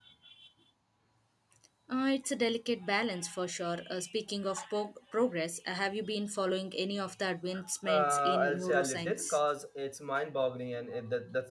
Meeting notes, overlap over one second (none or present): present